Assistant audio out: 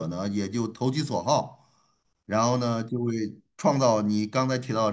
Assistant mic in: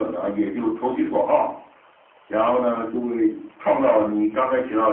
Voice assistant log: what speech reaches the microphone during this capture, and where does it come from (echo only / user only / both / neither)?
echo only